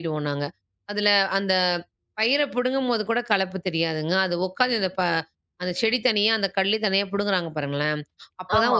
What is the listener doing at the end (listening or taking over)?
listening